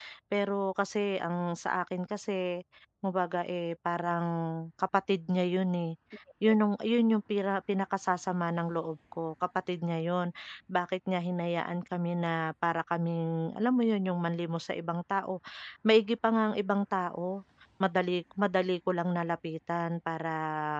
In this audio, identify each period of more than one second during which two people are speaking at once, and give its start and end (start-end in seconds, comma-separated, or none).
none